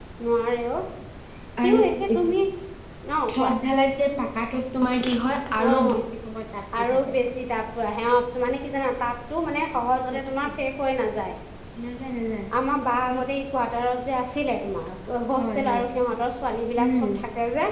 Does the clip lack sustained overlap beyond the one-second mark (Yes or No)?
Yes